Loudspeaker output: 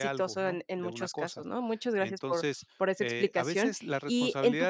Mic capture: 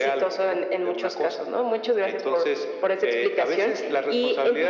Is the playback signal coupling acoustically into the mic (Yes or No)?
Yes